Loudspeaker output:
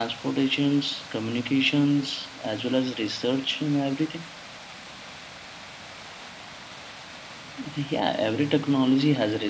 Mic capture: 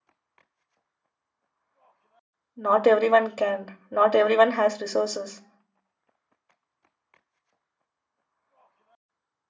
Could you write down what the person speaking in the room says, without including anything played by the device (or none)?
Not everyone can. Not everyone has resources.